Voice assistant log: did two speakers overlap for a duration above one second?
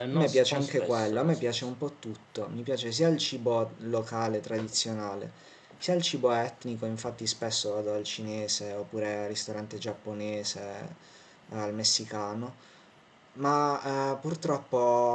Yes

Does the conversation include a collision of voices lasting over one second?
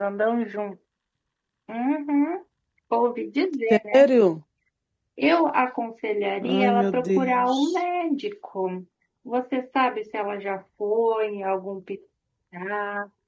Yes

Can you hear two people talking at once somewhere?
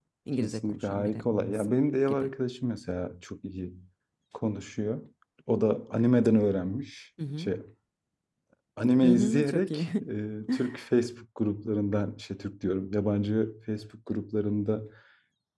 Yes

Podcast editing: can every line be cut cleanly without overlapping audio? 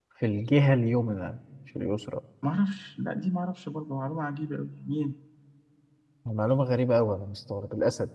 Yes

